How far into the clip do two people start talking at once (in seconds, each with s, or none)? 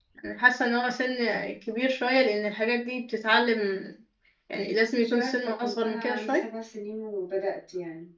5.0 s